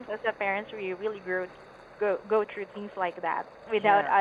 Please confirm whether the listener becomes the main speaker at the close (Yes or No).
No